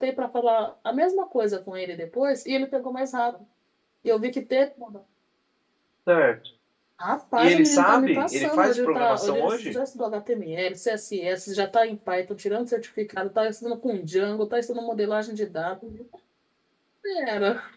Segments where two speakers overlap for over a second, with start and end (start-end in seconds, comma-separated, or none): 7.4-9.8